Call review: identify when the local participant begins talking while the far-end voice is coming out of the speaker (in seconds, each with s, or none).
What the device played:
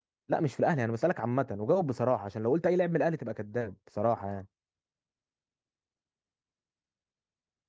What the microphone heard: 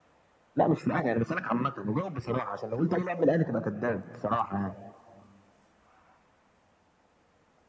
none